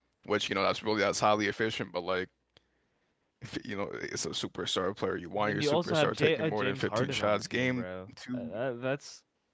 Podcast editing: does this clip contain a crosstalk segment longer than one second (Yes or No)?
Yes